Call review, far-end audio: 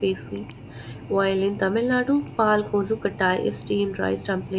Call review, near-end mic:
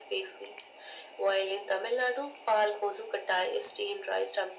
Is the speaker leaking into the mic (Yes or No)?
Yes